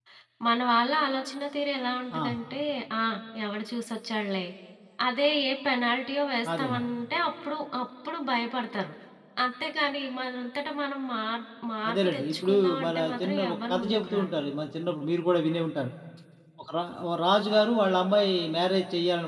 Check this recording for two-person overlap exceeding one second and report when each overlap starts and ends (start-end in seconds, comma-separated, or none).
11.9-14.3